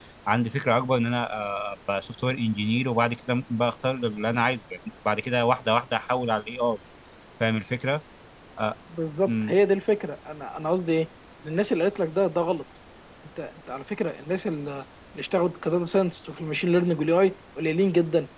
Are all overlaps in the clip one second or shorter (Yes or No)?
Yes